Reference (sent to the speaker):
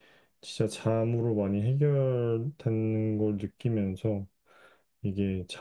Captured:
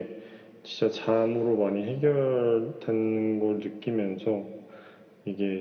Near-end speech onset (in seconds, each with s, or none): none